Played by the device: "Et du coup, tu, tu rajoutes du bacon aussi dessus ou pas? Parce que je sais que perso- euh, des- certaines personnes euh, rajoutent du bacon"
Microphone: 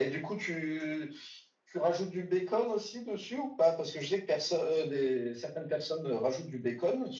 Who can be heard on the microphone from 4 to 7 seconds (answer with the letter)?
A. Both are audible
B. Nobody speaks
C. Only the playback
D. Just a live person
C